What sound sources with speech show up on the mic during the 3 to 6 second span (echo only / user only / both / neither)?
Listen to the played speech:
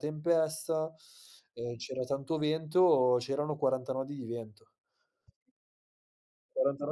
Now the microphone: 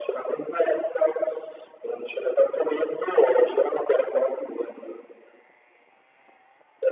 echo only